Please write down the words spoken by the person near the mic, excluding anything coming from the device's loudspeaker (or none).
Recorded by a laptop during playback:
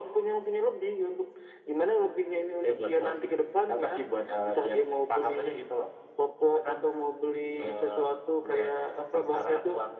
none